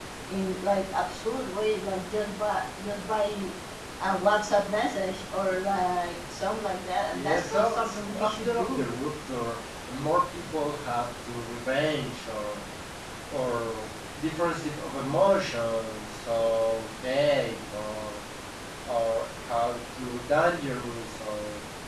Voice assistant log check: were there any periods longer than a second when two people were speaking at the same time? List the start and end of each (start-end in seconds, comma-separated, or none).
7.1-8.9